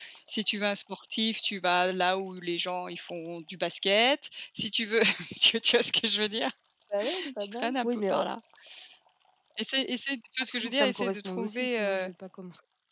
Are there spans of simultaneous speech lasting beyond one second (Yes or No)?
Yes